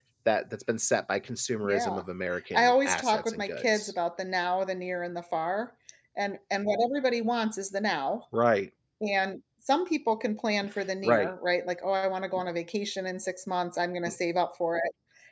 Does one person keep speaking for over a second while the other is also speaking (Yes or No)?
Yes